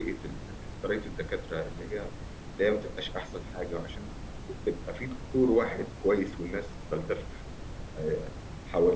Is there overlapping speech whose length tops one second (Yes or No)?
No